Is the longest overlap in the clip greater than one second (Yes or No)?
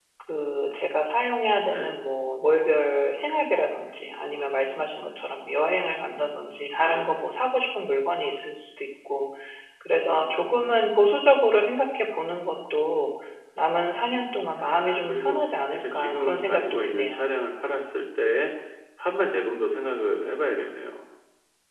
Yes